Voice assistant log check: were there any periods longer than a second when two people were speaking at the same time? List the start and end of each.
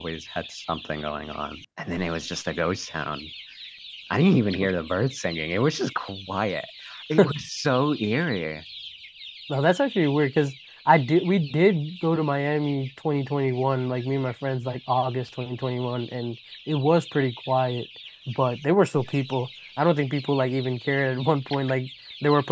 none

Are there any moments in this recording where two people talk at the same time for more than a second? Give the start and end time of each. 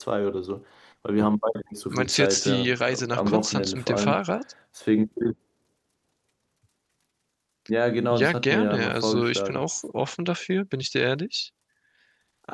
1.9-4.2, 8.1-9.6

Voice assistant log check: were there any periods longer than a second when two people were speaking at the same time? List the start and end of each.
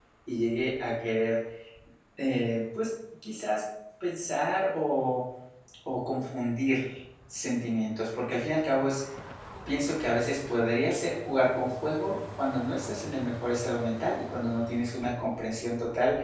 none

